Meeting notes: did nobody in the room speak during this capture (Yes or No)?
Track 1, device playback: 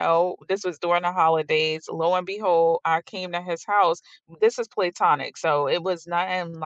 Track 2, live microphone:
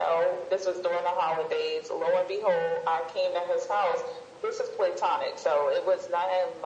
Yes